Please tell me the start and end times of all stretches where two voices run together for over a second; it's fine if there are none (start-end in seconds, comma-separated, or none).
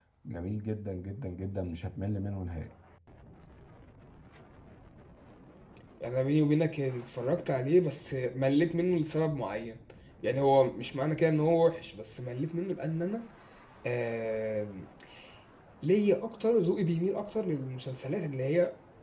none